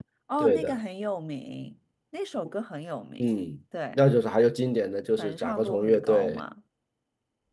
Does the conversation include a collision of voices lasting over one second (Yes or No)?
Yes